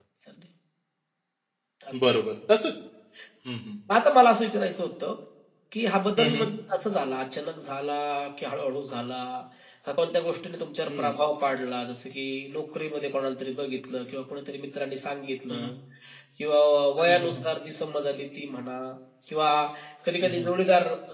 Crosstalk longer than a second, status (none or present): none